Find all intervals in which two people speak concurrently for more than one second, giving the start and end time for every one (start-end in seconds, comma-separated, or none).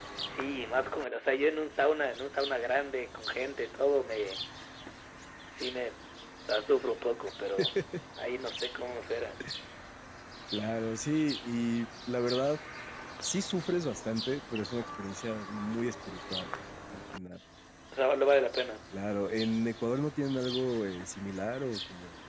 none